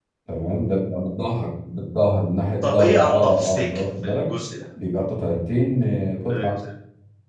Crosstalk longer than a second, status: present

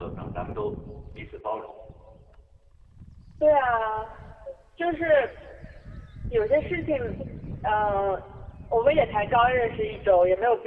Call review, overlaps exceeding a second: none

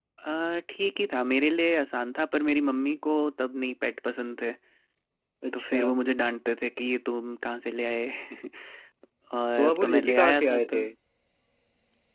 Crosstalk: present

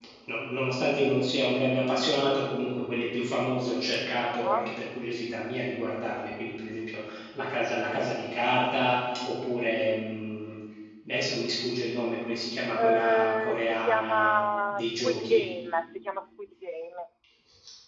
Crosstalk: present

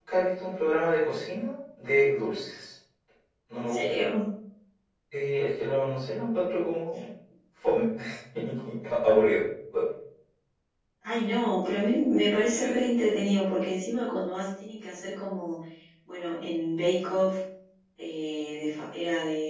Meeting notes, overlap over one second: none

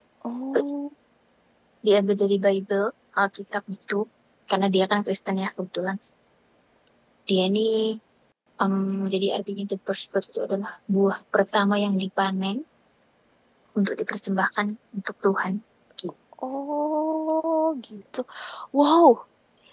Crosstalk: none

